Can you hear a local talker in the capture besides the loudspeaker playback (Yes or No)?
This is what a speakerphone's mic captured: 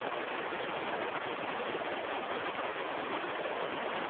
No